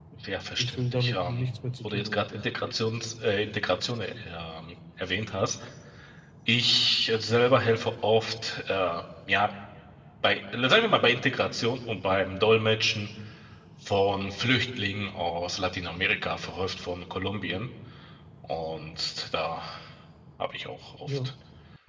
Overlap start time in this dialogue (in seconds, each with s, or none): 0.6 s